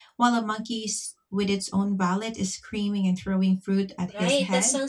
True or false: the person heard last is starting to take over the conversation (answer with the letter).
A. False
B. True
B